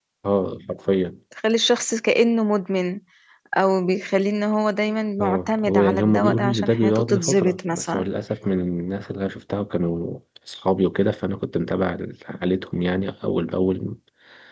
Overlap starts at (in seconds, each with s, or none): 5.2 s